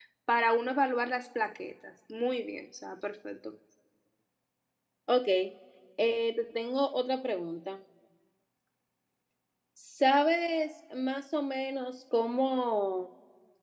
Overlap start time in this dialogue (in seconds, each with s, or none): none